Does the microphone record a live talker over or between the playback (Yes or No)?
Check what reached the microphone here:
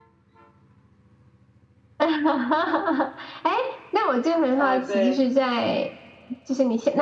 Yes